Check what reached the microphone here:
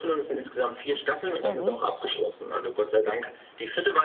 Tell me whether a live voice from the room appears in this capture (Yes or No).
Yes